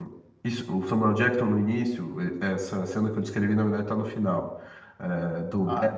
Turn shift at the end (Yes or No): No